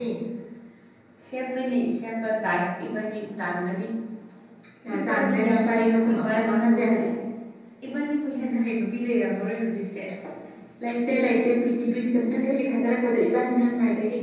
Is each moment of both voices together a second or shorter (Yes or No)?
No